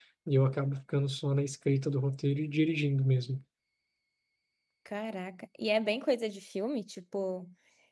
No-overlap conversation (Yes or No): Yes